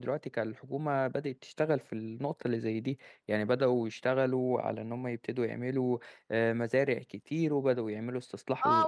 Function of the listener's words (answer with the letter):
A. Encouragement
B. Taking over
B